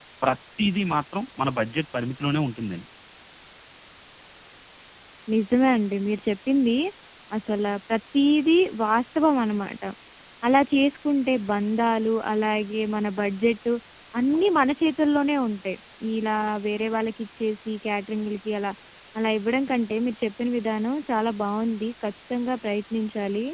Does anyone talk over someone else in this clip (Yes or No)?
No